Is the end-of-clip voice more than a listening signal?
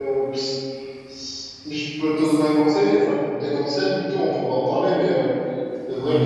No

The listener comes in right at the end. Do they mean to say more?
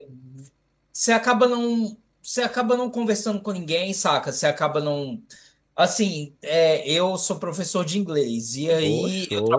No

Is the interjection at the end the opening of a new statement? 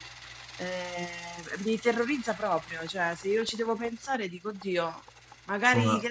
No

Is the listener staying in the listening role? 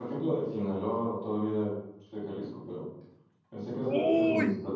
No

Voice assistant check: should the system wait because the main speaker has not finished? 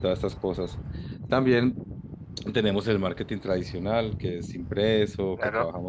Yes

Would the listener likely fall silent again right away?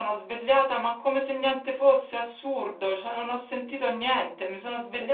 Yes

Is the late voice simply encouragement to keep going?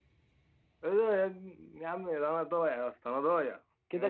No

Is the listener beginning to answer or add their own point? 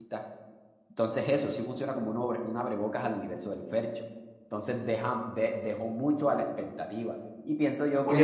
Yes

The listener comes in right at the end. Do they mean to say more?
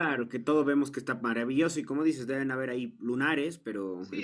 Yes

